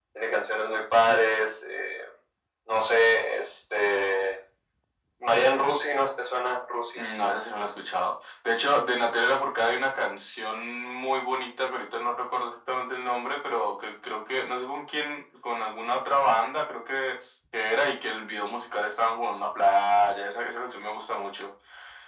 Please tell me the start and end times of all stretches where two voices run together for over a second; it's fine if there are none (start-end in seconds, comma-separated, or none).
none